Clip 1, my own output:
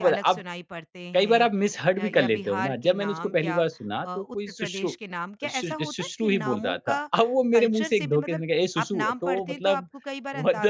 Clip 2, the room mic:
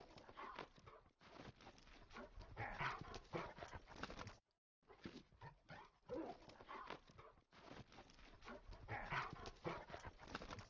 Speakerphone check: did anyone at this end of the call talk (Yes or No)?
No